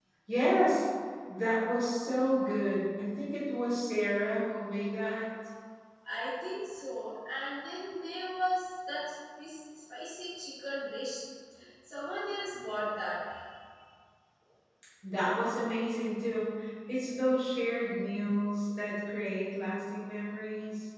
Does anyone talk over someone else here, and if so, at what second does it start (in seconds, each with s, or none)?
none